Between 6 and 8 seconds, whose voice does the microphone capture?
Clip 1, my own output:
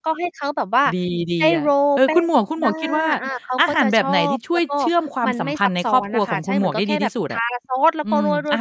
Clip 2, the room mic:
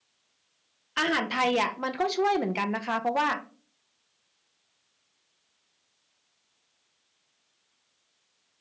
neither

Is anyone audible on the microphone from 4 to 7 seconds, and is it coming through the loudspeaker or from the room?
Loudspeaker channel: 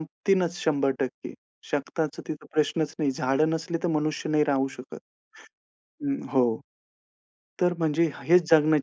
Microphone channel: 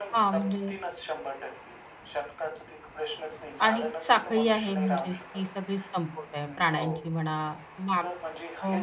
both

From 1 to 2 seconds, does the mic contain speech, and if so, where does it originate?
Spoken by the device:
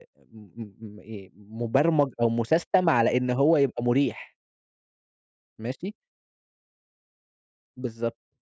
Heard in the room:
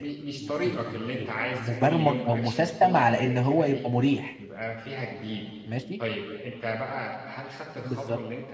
both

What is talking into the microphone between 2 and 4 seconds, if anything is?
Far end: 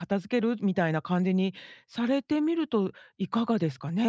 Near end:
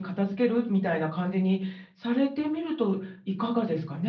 echo only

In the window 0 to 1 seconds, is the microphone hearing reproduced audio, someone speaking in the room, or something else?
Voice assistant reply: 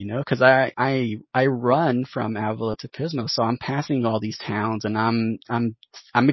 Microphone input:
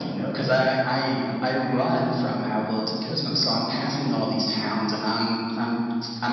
both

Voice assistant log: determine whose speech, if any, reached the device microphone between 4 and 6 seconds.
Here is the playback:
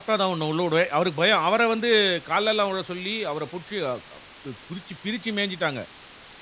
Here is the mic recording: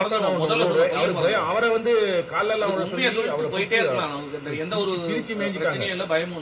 both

